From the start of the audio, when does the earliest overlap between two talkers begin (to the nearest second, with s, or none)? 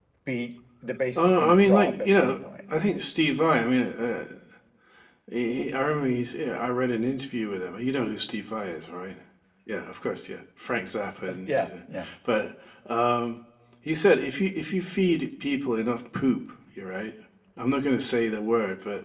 1 s